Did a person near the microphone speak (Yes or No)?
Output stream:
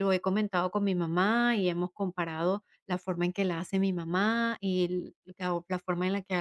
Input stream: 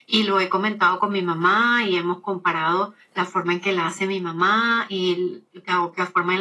No